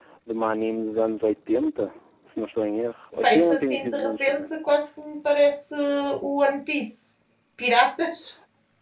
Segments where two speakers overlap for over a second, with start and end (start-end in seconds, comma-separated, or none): 3.2-4.5